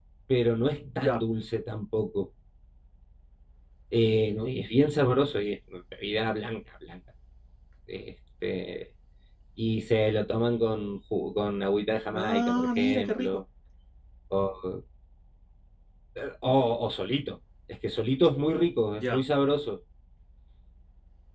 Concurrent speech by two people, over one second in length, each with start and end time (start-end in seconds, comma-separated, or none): 12.1-13.4